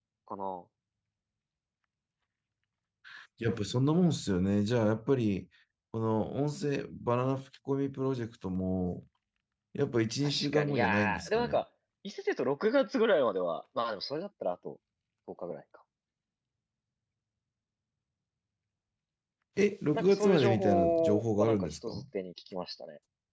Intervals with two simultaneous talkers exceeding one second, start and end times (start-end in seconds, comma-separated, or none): 10.2-11.6, 19.9-22.0